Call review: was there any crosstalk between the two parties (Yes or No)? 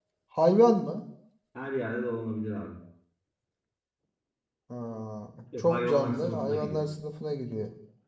Yes